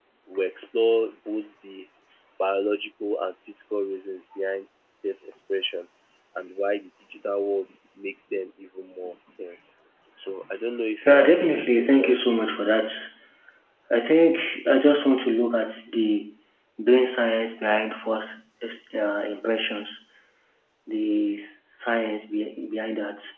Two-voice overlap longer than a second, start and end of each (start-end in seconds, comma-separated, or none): 11.1-12.6